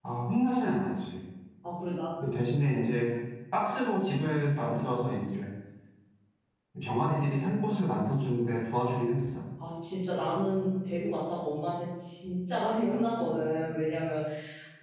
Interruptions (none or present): none